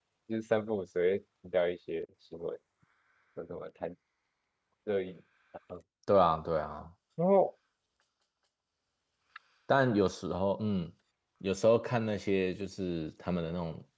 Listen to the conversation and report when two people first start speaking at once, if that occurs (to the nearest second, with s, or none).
none